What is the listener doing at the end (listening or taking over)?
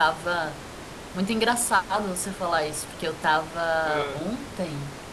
listening